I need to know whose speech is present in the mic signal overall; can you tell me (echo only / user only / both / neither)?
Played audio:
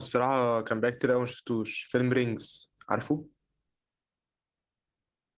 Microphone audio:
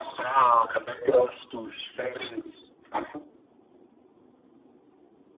echo only